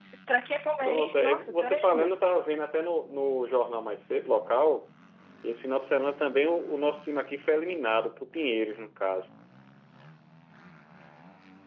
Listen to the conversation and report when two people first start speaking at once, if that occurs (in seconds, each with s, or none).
0.8 s